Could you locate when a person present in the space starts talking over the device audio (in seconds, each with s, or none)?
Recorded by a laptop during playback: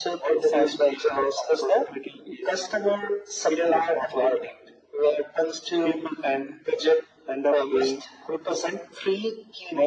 none